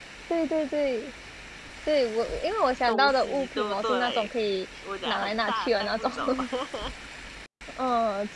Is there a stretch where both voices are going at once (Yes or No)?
Yes